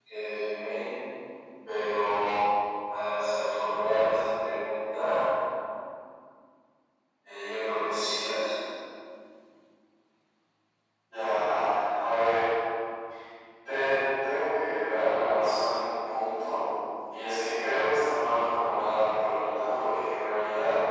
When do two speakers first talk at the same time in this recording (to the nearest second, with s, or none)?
none